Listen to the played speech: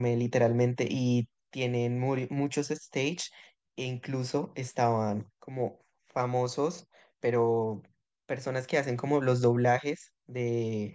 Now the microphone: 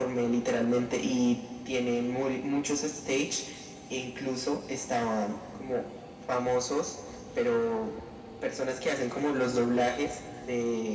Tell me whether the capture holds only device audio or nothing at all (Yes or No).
Yes